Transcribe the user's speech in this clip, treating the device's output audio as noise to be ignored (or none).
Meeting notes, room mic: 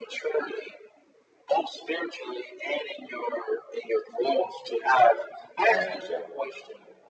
Uh, yeah.